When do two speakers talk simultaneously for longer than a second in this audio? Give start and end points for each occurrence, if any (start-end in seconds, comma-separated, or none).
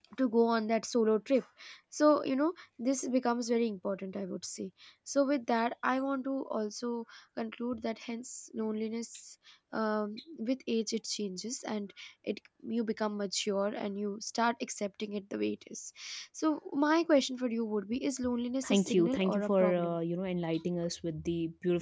18.7-20.0